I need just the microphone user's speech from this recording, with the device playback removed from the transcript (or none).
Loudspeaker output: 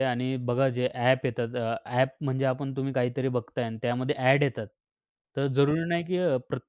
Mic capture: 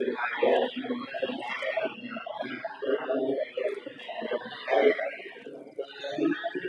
none